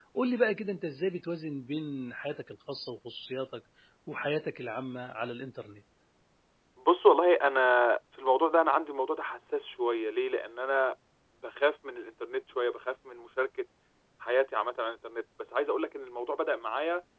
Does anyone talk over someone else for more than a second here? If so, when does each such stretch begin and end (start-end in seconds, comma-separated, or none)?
none